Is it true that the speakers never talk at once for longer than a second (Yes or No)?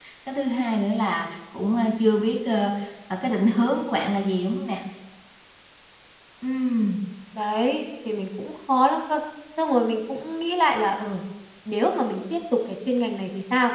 Yes